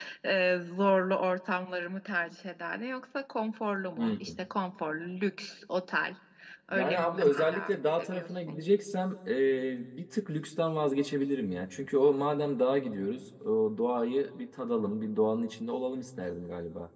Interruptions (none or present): present